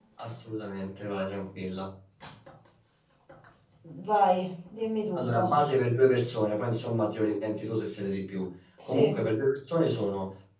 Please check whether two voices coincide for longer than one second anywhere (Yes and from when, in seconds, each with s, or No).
No